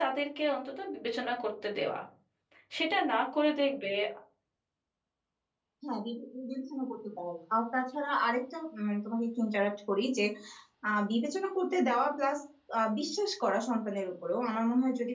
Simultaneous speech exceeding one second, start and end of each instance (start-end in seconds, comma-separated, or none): none